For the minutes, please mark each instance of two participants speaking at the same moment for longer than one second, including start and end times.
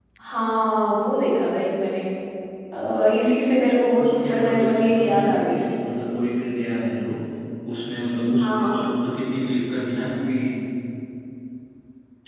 4.0-5.6

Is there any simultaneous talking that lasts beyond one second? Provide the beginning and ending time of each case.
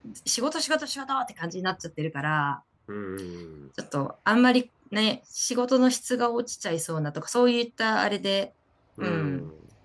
none

